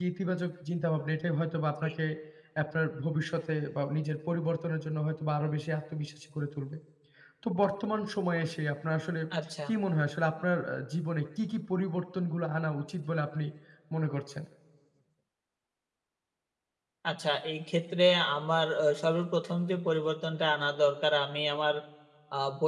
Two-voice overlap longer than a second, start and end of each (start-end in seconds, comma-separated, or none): none